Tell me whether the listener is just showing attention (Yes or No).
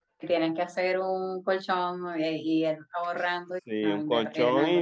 No